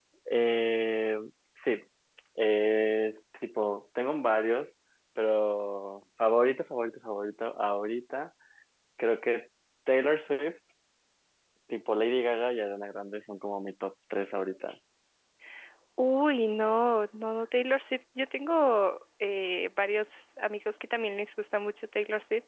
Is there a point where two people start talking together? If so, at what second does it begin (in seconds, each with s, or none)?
none